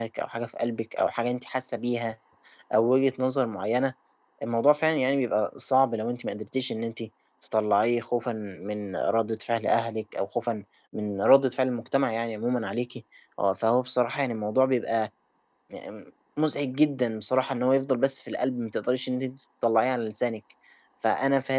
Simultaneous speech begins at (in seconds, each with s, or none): none